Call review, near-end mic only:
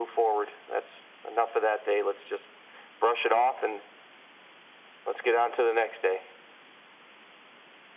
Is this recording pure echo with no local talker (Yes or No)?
Yes